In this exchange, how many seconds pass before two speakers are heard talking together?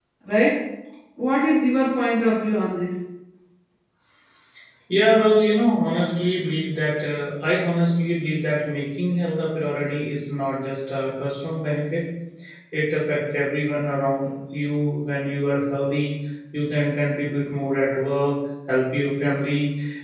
none

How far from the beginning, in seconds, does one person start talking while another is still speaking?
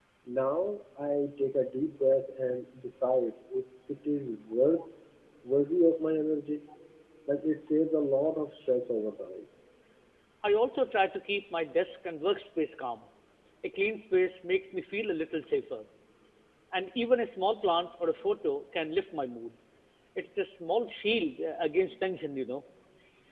none

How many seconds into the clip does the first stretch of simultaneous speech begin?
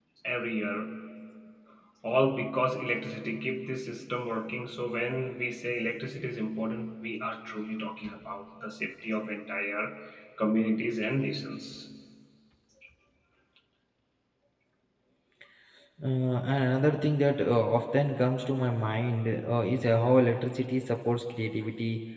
none

